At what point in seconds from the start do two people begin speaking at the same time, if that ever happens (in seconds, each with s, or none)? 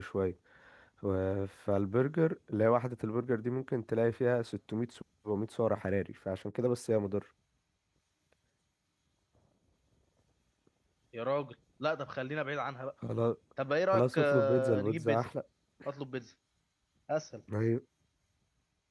13.9 s